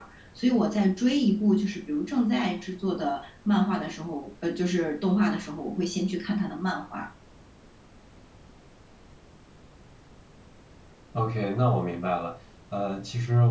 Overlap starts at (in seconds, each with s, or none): none